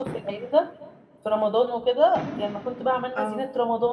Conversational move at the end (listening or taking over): listening